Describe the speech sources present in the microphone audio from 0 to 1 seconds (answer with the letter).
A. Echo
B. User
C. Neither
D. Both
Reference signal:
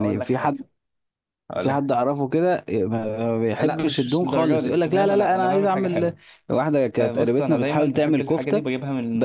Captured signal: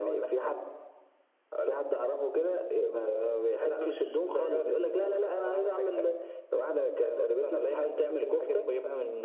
A